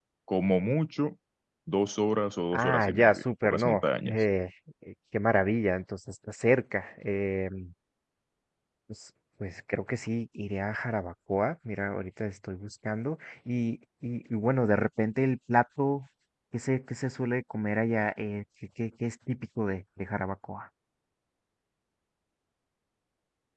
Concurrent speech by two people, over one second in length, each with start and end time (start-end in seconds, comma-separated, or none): 2.5-4.2